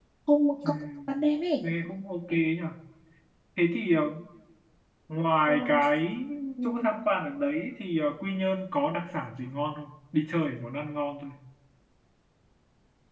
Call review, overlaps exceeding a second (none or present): none